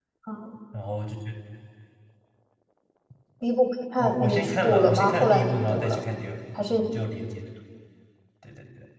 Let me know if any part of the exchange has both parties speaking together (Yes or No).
Yes